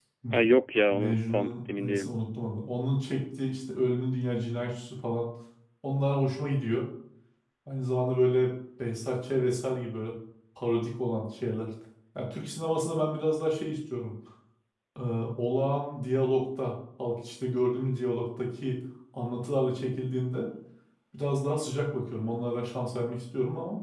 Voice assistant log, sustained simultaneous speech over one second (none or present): present